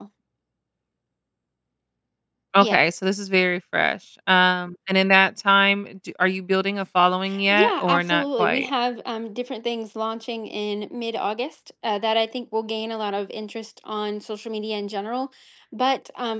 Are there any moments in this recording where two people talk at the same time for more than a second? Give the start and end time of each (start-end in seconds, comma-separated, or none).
7.5-8.7